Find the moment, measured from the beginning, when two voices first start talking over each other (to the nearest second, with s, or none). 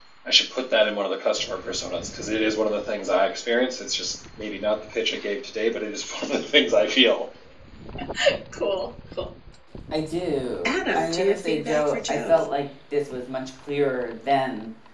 11 s